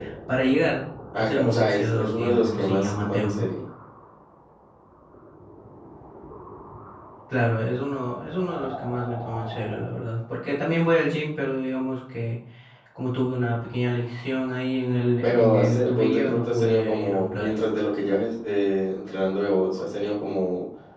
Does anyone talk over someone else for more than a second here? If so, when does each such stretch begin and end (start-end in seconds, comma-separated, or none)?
1.1-3.4, 15.2-17.5